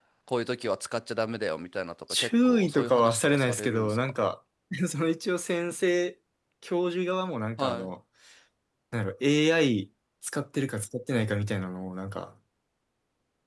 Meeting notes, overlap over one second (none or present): present